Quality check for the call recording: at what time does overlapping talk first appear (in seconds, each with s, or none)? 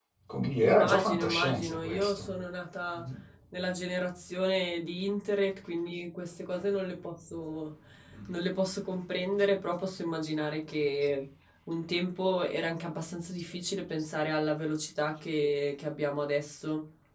0.6 s